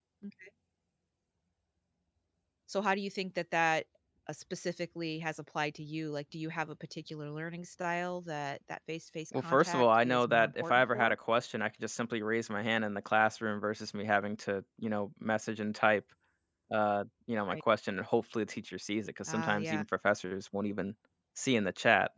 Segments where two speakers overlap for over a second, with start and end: 9.3-11.2

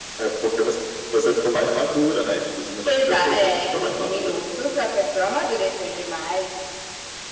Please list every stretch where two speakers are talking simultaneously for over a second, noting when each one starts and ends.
2.9-4.4

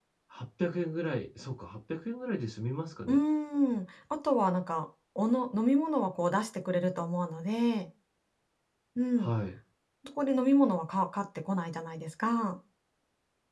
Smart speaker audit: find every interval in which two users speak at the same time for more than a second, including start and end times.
none

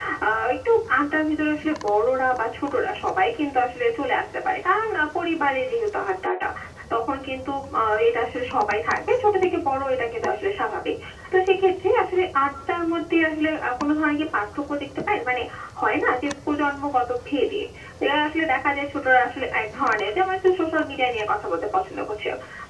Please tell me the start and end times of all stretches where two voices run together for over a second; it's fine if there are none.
none

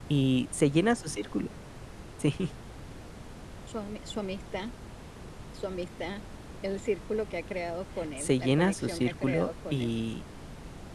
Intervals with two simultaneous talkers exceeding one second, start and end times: 8.2-9.9

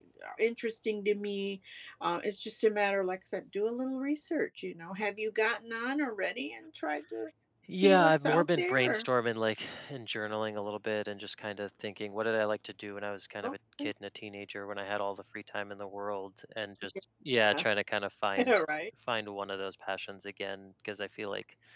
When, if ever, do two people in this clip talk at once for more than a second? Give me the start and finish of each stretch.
7.7-9.1

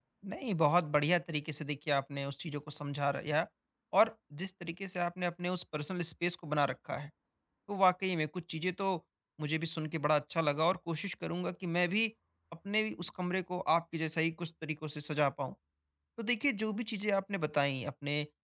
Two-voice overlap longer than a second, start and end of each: none

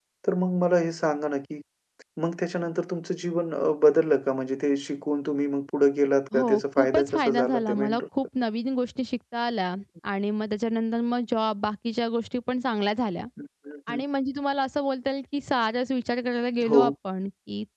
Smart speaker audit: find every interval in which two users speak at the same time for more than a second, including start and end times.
6.3-8.0

